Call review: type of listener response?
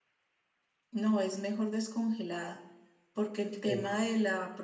listening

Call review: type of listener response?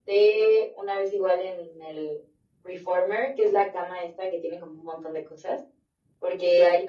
listening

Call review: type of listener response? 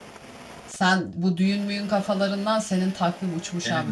taking over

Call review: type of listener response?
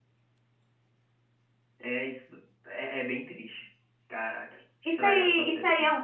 taking over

